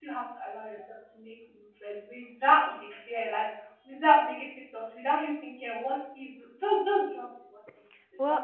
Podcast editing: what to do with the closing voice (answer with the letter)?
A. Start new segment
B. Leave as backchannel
A